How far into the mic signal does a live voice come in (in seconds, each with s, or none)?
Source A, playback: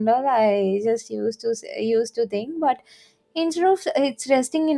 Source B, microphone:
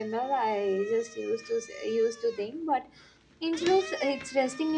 none